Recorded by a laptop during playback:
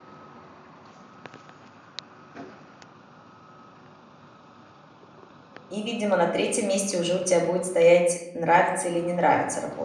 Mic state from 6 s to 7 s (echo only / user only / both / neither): user only